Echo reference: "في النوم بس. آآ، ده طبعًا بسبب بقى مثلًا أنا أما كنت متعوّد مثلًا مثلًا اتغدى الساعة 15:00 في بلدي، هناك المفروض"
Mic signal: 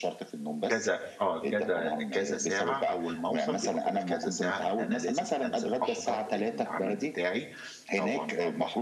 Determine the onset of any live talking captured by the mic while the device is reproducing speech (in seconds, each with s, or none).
0.7 s